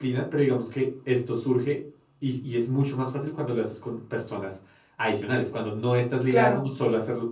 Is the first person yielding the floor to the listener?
No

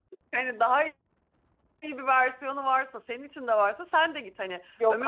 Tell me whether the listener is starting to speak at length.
No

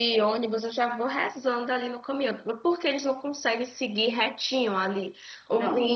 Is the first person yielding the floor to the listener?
No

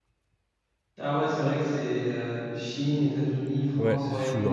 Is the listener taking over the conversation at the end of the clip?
Yes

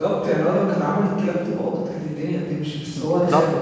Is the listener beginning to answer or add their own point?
Yes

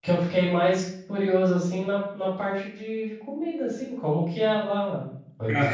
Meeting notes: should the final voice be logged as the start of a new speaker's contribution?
No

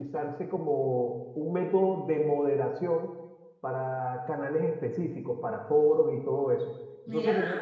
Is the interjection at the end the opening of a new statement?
No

